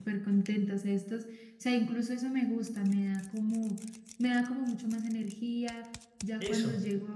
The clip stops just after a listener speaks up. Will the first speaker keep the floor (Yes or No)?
Yes